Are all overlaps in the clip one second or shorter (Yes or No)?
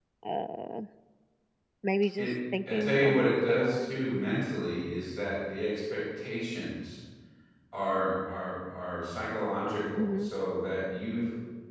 No